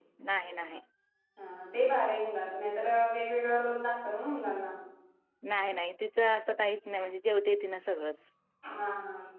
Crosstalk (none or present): none